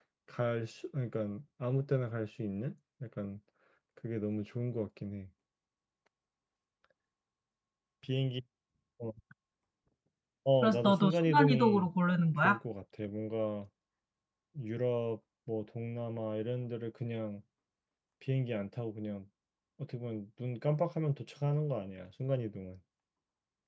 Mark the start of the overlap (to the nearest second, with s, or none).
11 s